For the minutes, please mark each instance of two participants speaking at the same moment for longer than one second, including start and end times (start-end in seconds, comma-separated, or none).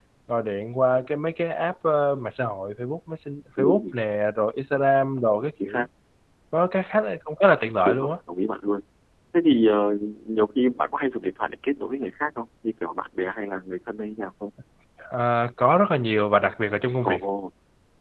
none